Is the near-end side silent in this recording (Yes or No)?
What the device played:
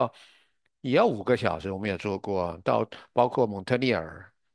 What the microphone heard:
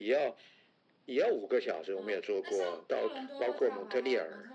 No